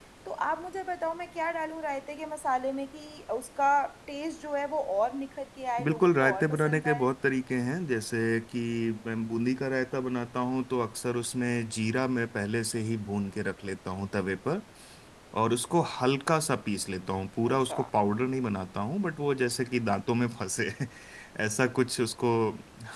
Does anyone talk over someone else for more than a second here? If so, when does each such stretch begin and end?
5.8-7.1

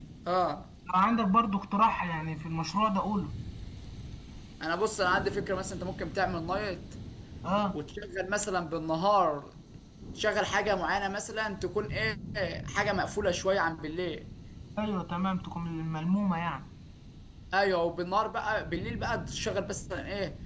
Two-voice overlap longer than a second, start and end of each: none

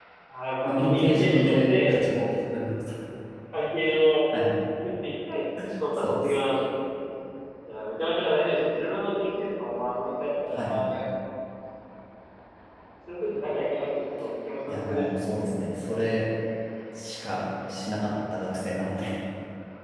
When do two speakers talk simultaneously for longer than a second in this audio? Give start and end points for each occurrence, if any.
0.7-2.2

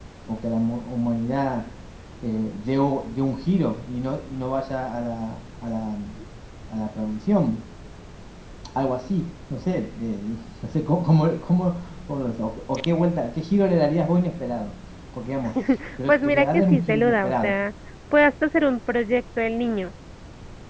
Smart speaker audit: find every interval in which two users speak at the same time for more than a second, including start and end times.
16.1-17.5

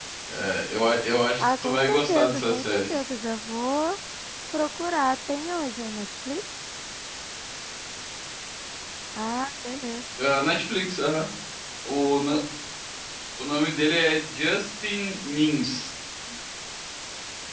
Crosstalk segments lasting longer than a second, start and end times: 1.4-3.0

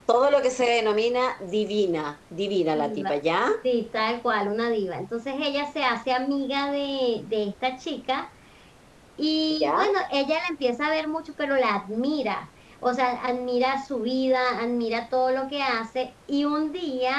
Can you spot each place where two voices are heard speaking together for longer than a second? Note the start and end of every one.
none

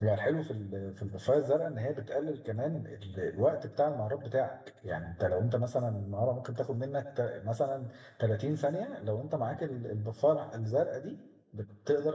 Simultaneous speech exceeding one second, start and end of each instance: none

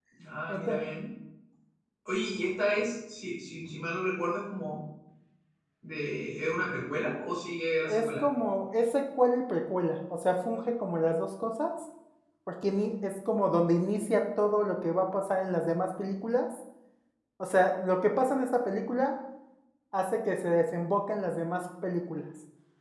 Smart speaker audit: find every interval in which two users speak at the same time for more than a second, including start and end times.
none

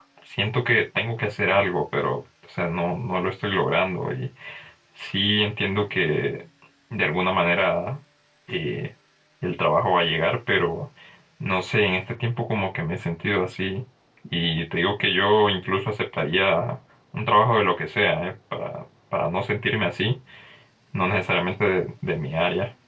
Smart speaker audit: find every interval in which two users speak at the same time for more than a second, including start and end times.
none

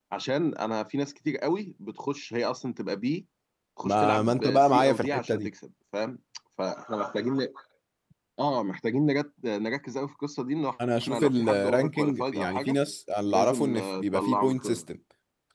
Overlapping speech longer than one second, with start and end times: 3.8-5.5, 11.0-12.8, 13.3-14.8

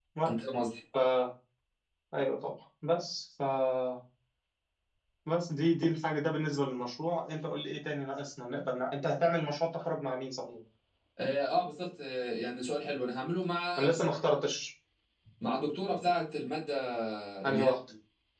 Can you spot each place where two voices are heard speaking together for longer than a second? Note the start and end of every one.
none

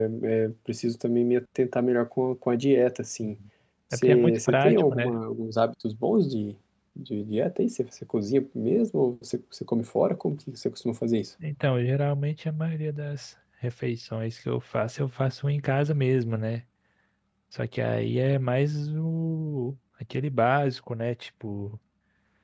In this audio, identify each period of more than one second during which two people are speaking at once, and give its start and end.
3.9-5.1

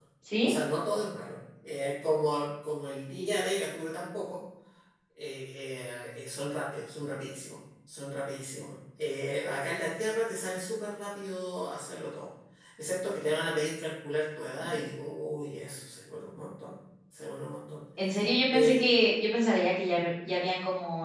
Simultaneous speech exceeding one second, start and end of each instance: none

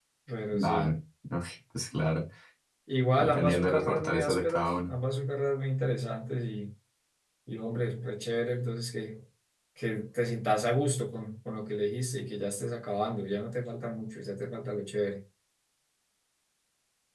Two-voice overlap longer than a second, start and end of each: 3.2-5.0

